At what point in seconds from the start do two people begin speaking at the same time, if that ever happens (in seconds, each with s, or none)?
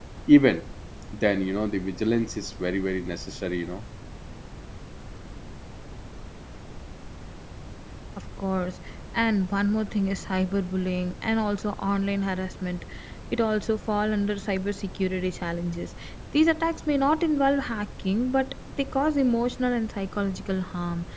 none